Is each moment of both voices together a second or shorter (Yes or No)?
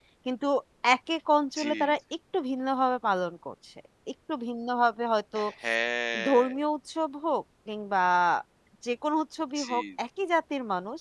Yes